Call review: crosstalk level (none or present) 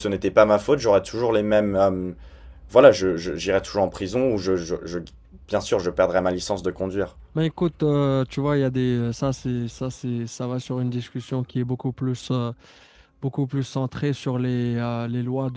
none